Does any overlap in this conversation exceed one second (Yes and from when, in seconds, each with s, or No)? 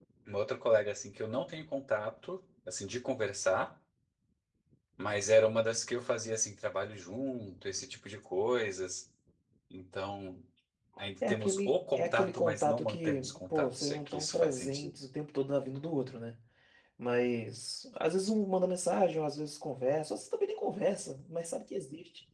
Yes, from 11.3 s